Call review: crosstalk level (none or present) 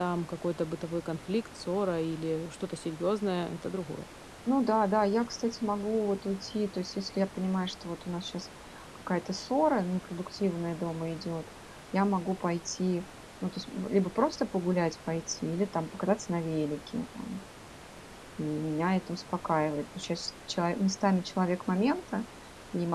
none